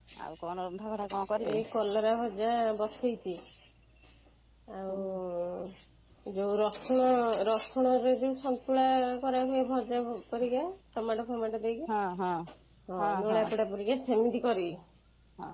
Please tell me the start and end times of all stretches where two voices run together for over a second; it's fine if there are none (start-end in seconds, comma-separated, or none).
none